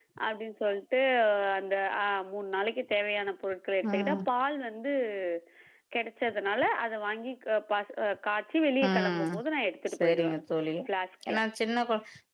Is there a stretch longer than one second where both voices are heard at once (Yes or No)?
No